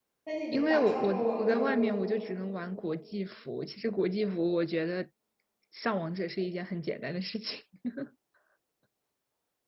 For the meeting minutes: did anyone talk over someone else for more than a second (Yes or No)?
Yes